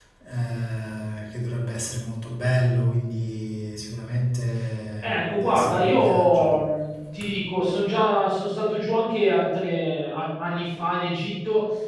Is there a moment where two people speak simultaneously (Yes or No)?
Yes